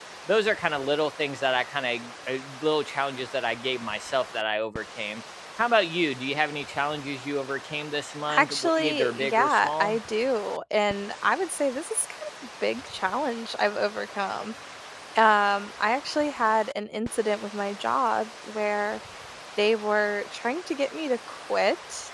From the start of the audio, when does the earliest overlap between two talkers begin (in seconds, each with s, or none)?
8.3 s